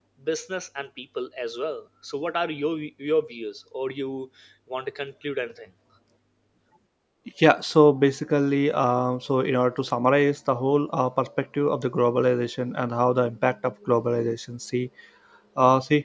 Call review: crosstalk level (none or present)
none